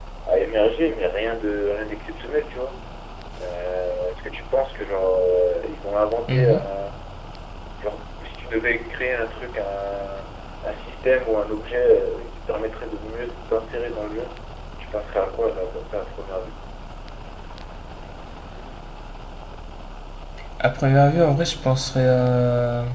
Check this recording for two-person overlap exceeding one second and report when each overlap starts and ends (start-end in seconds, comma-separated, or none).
none